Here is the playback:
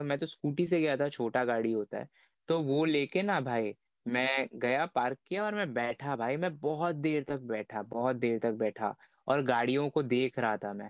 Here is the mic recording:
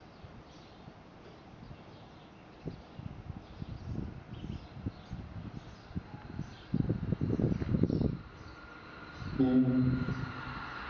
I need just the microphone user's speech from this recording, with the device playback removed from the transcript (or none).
हम्म